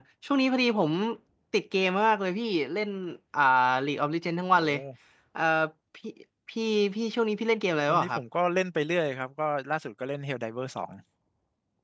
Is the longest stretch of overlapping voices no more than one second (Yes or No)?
Yes